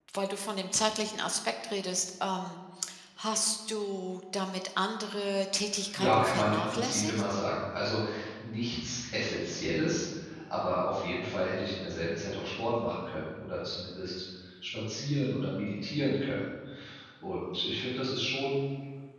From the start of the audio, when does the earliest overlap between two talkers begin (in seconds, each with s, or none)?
5.9 s